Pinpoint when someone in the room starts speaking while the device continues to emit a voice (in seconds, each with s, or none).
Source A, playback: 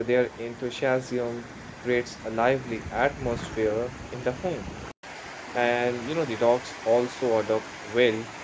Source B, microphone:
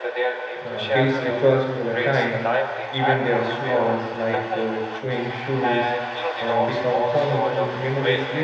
0.6 s